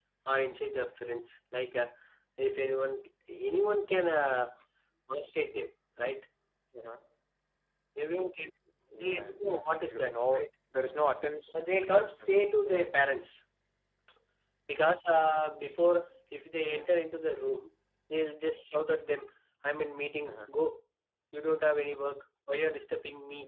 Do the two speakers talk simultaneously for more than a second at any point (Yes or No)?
Yes